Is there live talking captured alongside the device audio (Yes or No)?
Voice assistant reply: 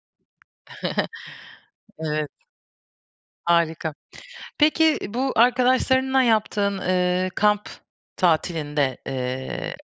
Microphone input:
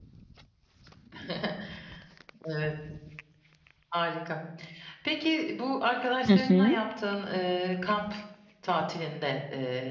Yes